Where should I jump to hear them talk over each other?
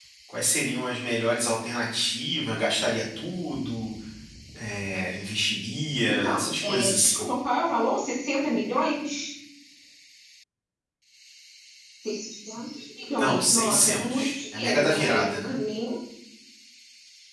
6.0 s

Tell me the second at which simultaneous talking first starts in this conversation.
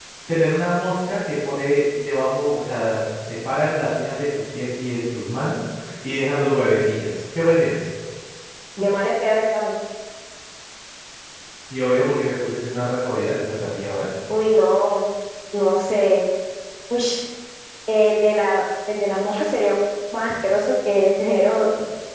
none

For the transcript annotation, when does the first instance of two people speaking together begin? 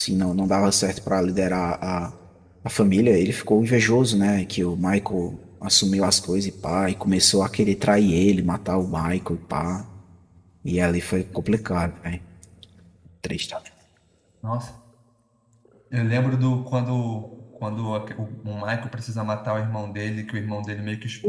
none

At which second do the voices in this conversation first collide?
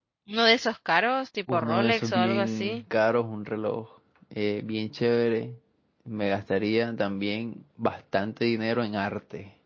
1.5 s

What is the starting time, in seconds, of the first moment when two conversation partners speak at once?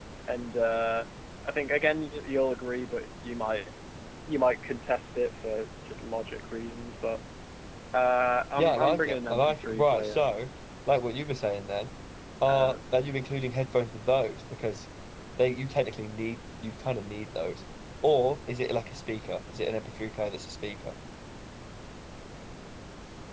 8.6 s

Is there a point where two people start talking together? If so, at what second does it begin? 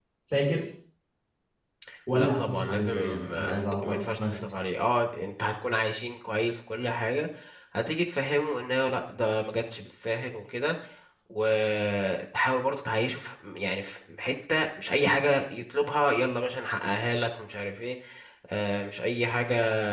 2.1 s

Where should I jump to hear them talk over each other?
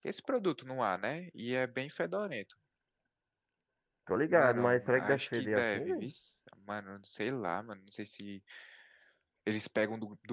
4.3 s

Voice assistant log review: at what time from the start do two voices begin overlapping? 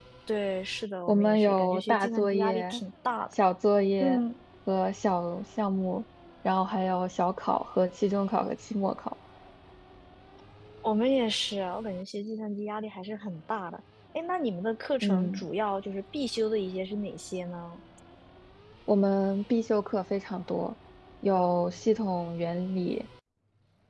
1.1 s

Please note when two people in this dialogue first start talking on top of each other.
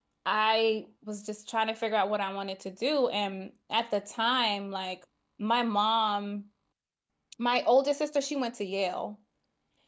none

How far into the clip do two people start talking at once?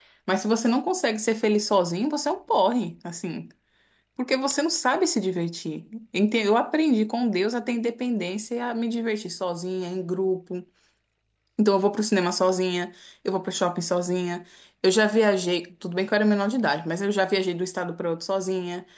none

